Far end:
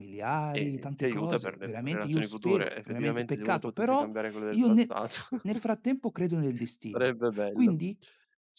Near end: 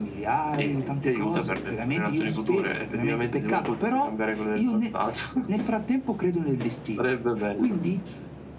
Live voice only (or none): none